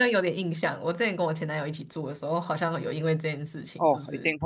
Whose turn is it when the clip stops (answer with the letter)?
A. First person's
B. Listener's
B